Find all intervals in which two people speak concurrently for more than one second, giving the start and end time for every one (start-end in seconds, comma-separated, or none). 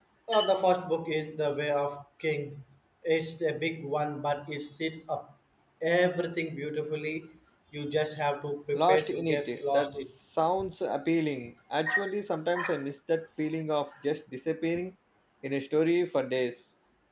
8.7-10.1